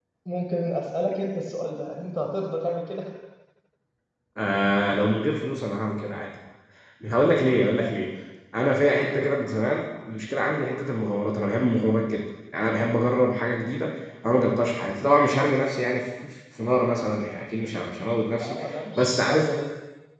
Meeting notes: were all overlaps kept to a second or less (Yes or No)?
Yes